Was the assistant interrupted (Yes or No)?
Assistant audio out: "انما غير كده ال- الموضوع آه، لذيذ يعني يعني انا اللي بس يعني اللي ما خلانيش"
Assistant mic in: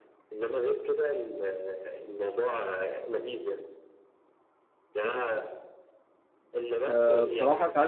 Yes